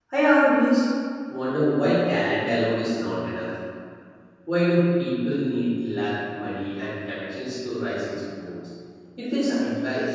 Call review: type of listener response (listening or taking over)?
taking over